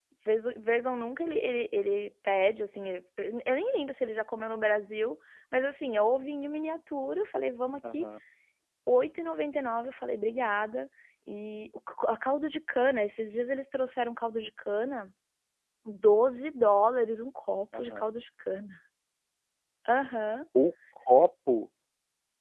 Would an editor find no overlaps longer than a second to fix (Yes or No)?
Yes